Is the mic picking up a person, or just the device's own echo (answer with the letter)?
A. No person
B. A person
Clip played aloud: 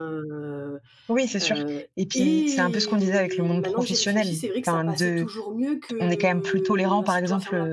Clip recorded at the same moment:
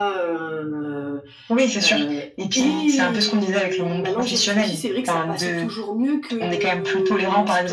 A